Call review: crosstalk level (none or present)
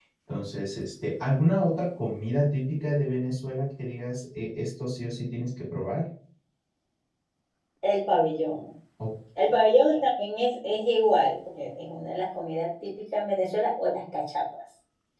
none